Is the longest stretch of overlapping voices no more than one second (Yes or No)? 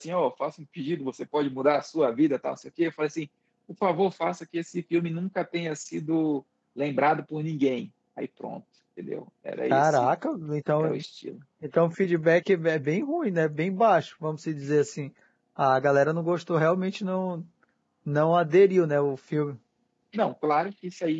Yes